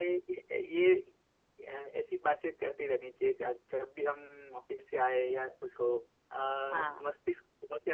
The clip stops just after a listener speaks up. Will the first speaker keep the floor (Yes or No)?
Yes